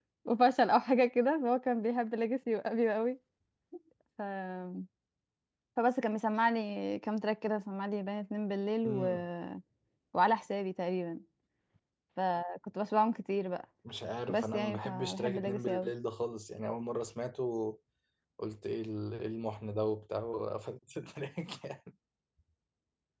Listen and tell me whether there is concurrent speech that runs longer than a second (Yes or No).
Yes